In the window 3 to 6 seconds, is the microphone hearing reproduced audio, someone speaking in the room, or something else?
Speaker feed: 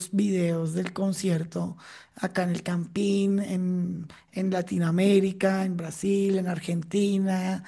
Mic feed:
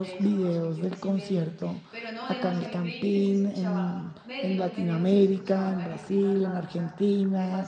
both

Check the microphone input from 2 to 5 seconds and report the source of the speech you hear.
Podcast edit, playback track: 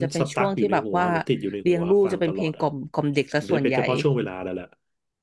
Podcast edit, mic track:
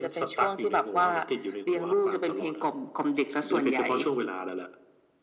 echo only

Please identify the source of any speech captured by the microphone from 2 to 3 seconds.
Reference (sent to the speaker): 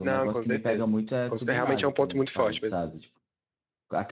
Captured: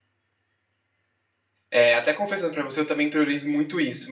user only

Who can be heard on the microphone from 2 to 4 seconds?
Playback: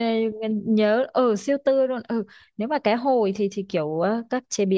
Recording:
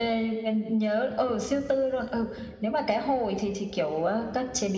echo only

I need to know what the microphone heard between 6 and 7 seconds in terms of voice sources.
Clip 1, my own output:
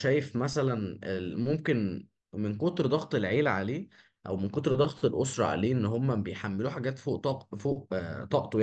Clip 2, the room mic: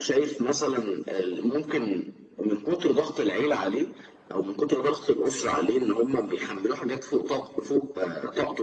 echo only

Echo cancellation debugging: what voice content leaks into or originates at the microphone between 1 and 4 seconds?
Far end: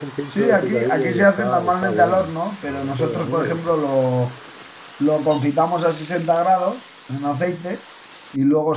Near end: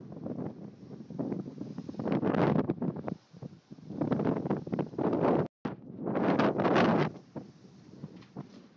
neither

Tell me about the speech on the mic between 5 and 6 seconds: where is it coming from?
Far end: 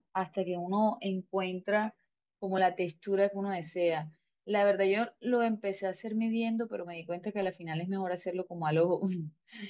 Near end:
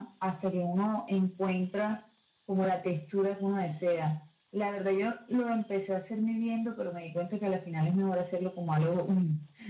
echo only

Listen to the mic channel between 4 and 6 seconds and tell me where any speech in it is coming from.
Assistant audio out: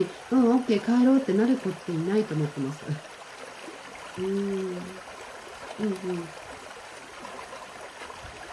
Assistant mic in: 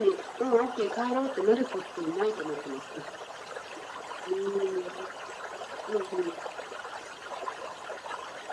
echo only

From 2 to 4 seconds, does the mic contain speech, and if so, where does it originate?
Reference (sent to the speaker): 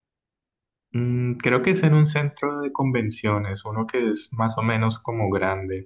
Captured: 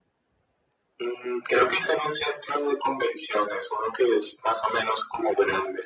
echo only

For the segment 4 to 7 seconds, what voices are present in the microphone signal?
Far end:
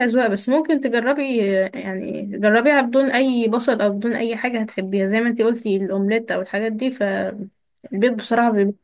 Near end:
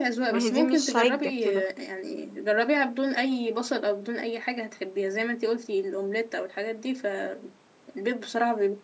echo only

